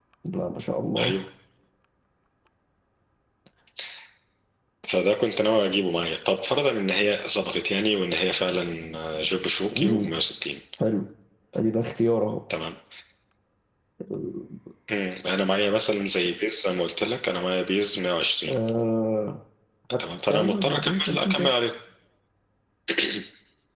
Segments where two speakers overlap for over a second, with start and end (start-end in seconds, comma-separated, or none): 20.3-21.5